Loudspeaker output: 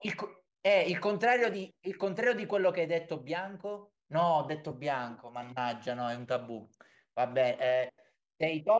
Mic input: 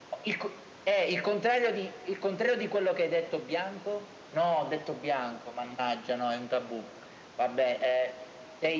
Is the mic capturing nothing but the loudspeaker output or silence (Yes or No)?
Yes